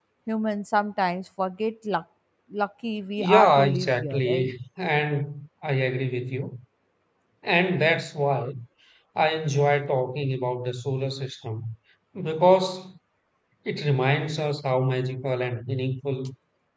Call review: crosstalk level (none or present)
present